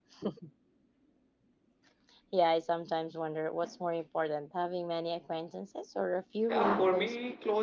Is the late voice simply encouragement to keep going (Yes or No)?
No